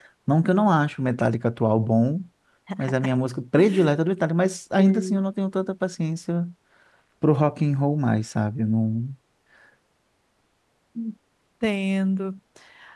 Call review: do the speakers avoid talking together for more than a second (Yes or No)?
Yes